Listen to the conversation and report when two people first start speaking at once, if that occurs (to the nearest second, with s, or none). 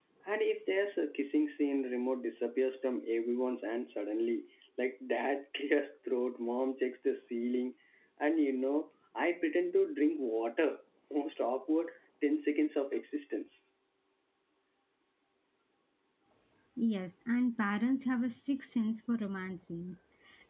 none